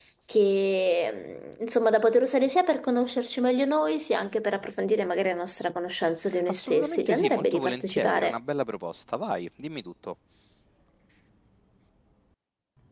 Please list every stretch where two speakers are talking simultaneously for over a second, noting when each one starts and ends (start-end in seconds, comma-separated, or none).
6.5-8.3